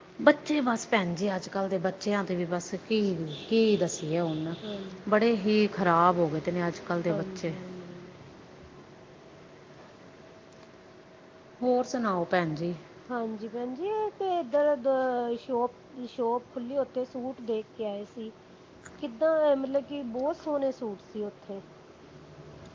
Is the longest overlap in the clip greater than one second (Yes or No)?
No